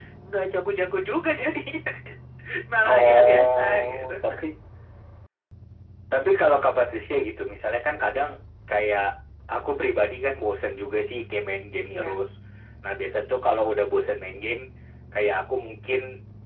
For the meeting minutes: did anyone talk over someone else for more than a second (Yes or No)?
Yes